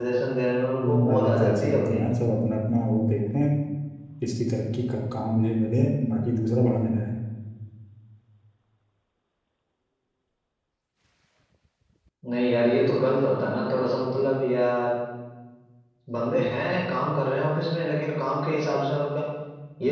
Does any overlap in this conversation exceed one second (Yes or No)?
Yes